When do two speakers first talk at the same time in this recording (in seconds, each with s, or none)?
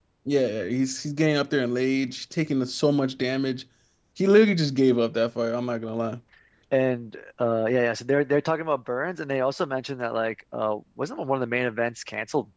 none